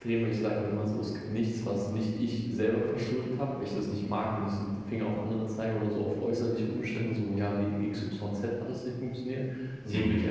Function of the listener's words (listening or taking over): listening